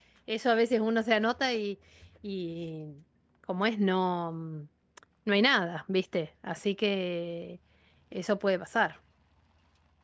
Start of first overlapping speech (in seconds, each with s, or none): none